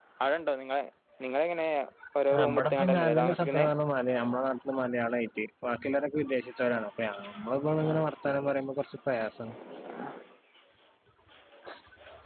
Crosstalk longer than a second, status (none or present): present